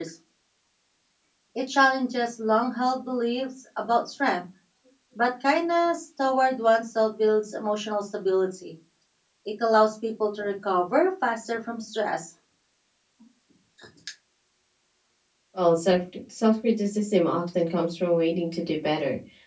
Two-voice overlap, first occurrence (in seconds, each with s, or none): none